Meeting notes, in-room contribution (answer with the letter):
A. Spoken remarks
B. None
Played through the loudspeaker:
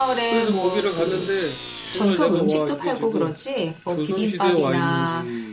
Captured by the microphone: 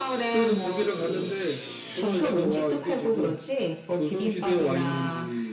B